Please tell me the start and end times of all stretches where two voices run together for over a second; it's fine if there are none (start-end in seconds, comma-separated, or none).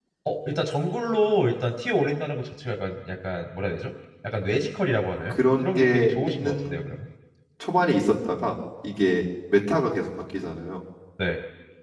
5.3-6.8